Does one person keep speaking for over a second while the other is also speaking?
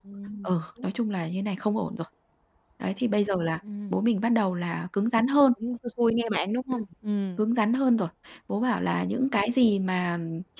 No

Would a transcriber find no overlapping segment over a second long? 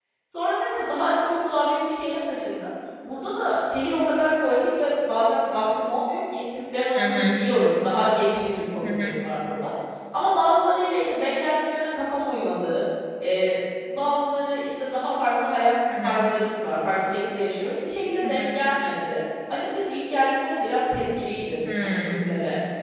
Yes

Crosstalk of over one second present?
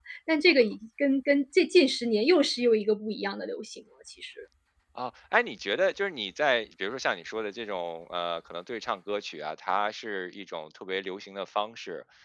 No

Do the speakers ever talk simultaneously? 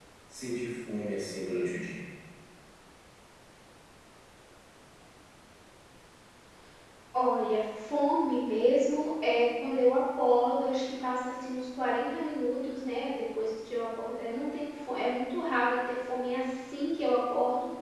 No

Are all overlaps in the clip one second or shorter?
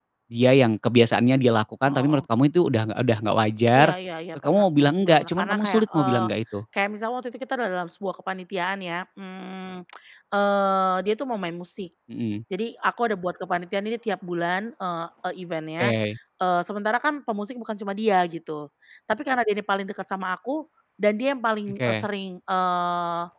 No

